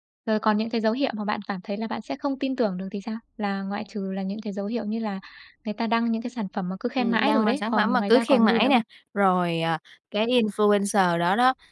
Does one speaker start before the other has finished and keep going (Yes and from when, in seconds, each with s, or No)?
Yes, from 7.0 s